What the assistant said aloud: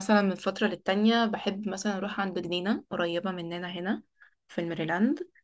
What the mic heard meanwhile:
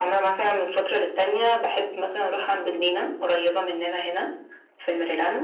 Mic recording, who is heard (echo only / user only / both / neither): echo only